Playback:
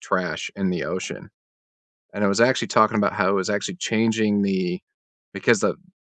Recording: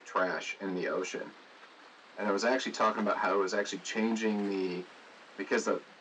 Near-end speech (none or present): none